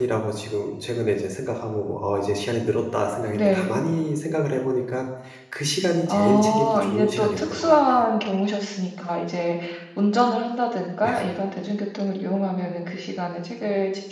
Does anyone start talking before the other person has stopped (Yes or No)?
Yes